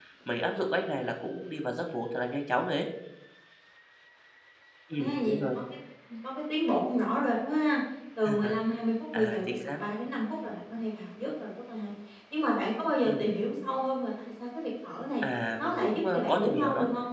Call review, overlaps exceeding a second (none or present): present